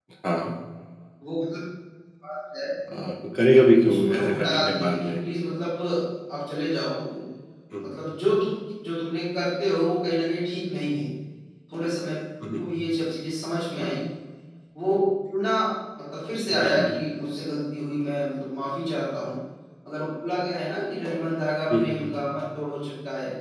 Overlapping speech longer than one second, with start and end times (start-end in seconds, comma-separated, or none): 3.9-5.1